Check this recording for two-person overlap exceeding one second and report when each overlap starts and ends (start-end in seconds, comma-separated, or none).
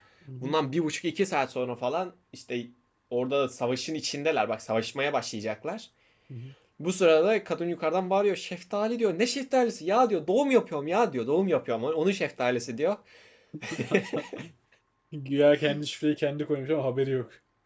none